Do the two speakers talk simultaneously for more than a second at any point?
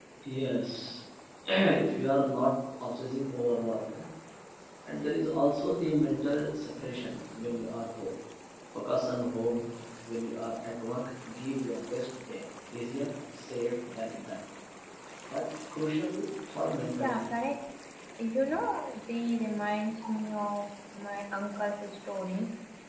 No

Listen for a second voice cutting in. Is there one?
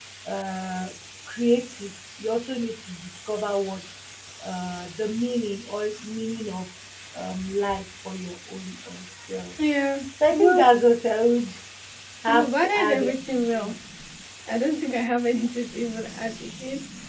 Yes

